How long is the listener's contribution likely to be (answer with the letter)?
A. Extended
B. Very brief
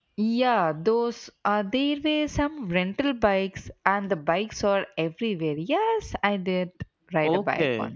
A